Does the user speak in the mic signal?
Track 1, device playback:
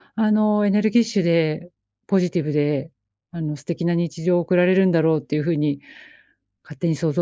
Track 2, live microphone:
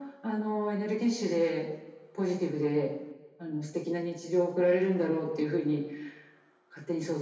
No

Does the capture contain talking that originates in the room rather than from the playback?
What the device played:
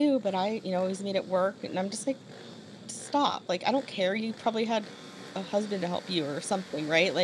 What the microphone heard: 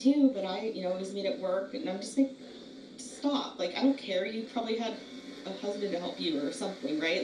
No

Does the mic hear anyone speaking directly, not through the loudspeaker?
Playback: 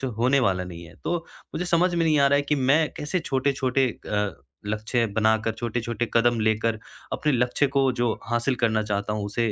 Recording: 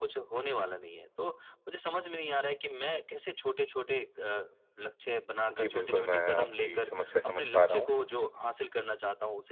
Yes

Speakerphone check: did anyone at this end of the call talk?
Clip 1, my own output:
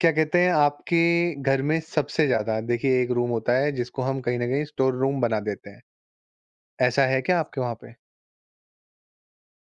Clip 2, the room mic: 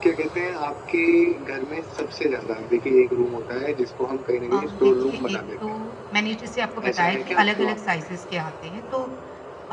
Yes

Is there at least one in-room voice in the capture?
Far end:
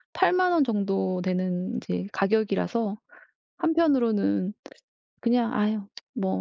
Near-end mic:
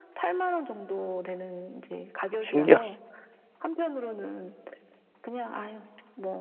Yes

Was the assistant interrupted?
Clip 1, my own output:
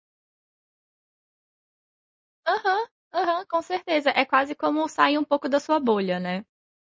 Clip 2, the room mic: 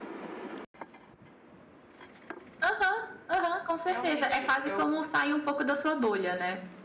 Yes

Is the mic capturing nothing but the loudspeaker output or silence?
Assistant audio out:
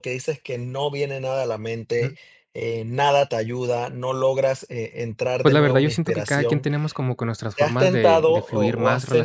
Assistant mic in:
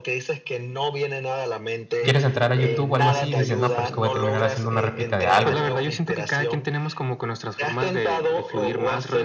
No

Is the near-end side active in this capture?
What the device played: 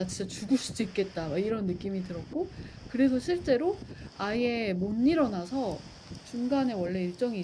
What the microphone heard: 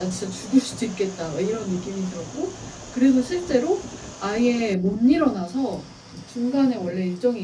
No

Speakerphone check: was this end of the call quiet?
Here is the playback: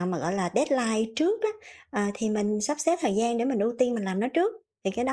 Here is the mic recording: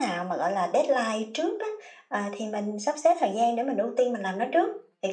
No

